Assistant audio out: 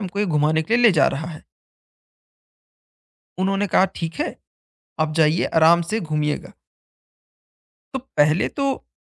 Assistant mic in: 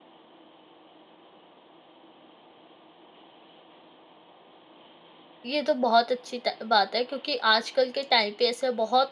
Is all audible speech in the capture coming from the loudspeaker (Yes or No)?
No